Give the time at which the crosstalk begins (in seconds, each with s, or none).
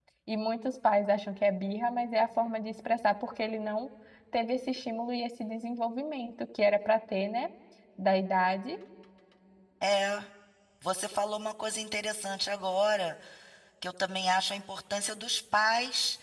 none